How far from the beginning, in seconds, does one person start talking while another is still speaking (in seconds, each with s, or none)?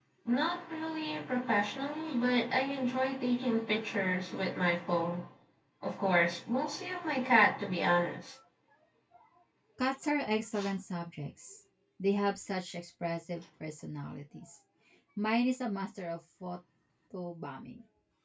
none